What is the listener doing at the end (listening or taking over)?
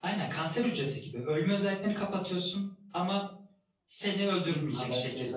taking over